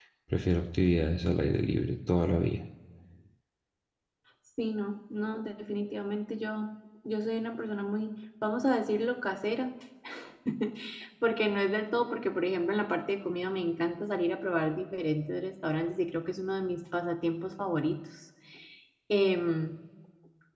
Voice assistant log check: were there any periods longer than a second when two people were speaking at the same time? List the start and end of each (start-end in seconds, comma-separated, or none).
none